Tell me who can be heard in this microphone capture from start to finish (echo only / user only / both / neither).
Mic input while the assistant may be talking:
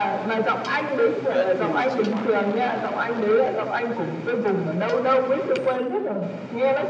both